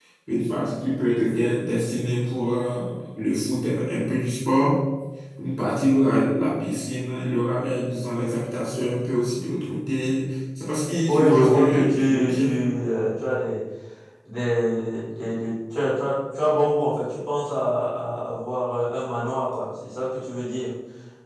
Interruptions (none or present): present